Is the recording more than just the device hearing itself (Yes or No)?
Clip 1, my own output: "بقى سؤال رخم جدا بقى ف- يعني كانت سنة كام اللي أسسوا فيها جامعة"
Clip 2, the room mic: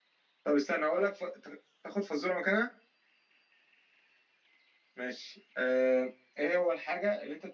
Yes